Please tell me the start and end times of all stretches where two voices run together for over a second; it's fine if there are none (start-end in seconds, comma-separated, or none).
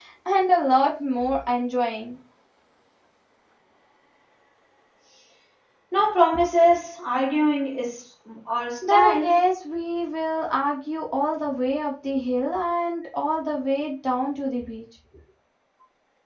none